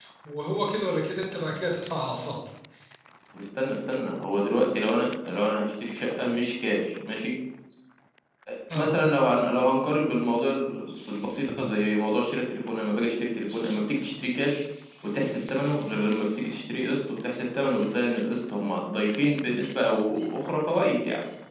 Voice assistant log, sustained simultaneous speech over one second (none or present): none